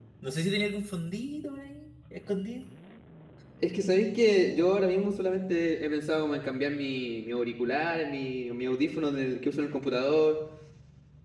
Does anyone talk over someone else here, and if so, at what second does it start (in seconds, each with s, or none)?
none